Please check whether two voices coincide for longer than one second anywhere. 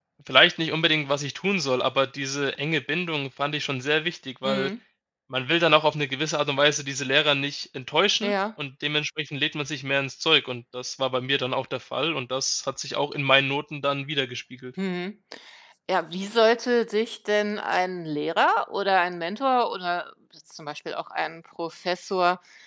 No

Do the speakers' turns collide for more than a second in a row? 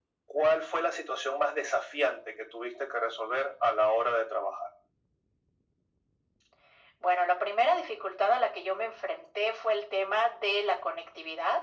No

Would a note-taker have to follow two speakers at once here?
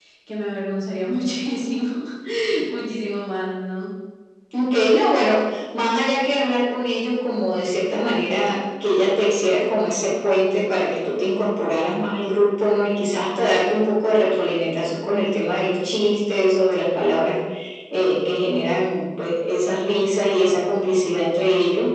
No

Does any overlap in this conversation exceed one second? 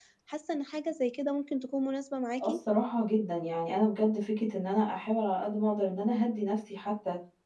No

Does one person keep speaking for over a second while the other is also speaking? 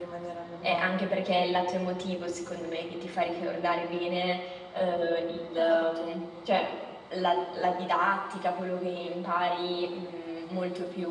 No

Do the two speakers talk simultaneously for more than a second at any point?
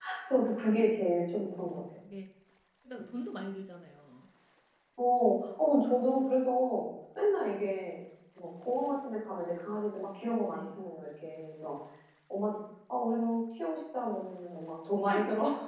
No

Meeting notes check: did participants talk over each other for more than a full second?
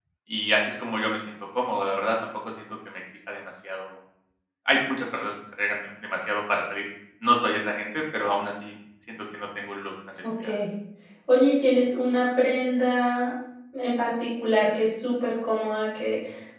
No

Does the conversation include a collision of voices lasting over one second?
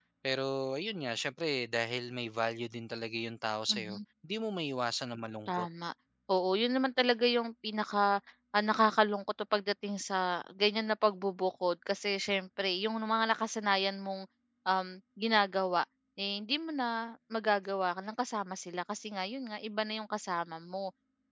No

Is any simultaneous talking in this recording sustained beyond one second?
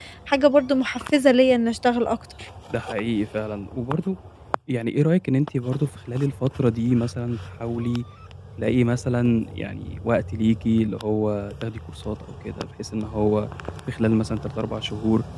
No

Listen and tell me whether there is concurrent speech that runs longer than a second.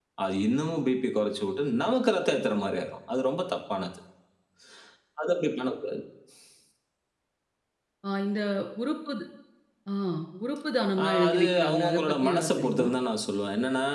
Yes, from 11.0 s

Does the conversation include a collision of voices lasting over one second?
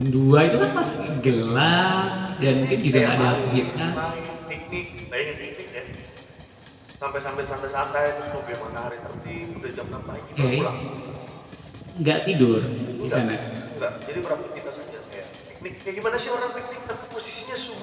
Yes, from 2.4 s

